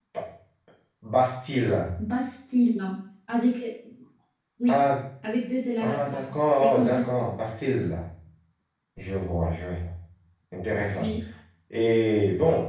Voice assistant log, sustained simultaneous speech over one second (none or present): present